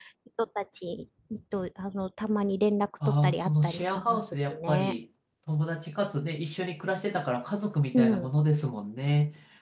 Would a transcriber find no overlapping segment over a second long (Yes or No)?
No